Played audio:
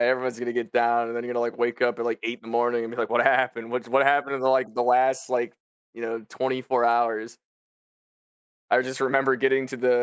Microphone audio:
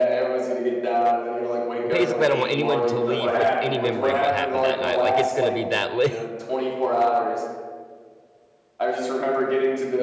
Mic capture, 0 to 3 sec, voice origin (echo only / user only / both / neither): both